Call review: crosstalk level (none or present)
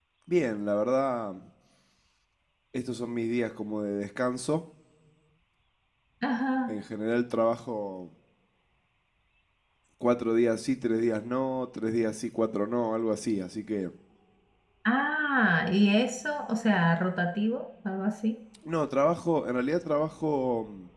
none